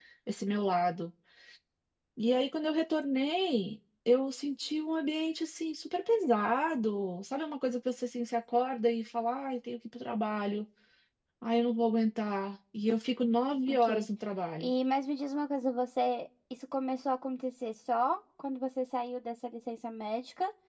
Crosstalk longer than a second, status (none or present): none